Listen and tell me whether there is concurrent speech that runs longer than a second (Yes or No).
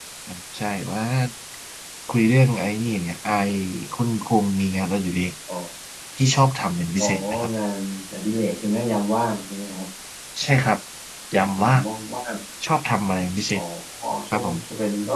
No